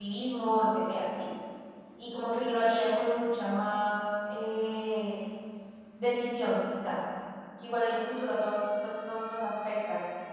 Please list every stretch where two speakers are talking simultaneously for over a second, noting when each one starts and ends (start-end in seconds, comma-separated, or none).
none